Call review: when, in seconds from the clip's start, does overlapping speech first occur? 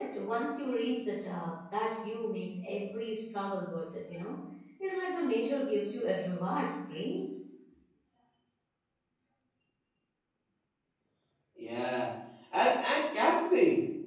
none

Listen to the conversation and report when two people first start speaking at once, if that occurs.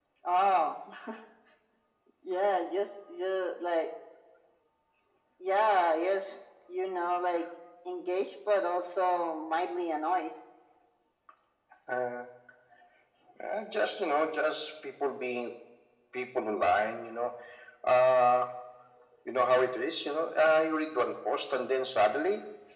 none

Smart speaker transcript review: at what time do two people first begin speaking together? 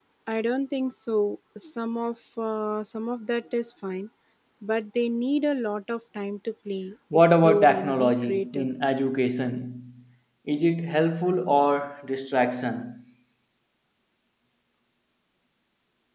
7 s

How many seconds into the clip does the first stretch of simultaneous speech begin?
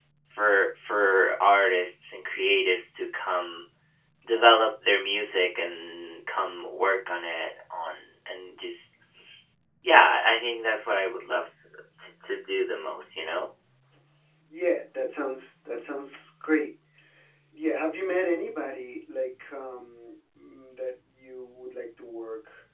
none

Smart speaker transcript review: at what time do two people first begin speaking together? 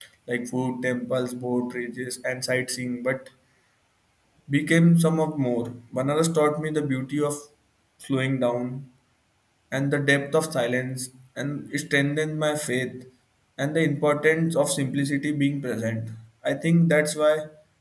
none

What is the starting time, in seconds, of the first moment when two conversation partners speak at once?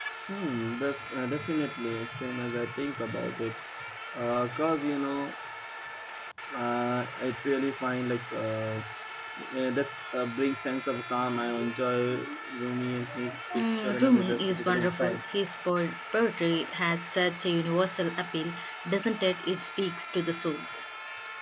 14 s

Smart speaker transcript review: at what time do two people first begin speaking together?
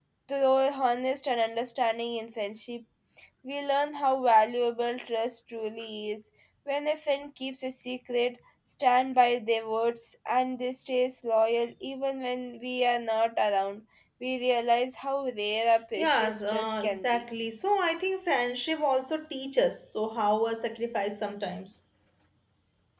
16 s

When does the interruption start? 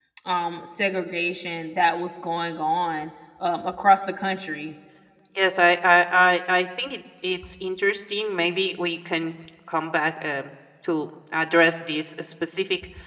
none

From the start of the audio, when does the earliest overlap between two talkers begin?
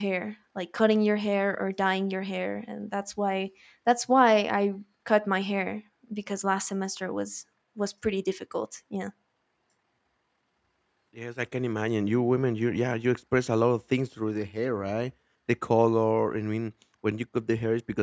none

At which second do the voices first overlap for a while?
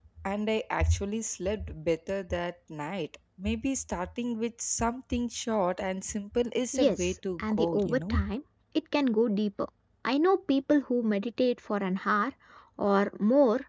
7 s

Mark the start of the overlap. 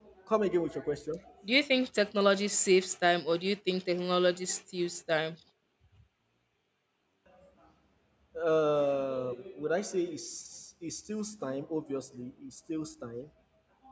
none

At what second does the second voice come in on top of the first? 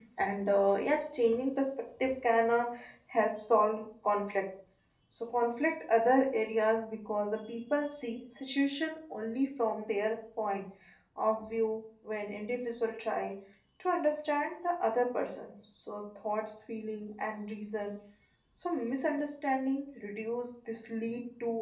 none

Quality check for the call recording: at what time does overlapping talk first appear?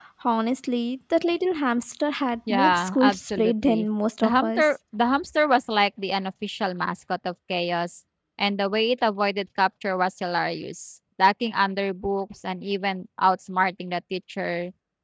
2 s

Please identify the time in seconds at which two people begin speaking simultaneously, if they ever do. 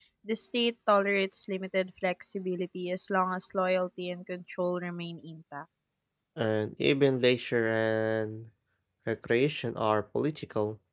none

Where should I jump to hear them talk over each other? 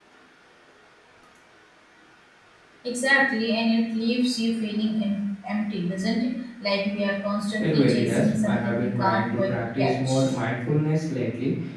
8 s

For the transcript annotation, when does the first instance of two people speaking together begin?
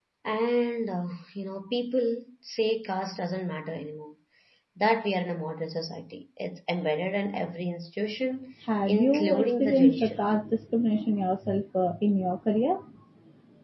9 s

